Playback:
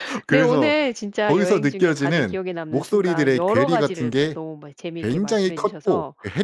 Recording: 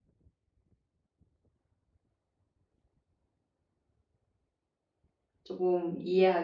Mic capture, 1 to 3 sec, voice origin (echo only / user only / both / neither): neither